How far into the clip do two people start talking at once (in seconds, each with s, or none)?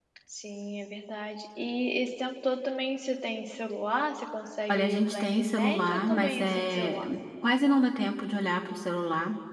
4.7 s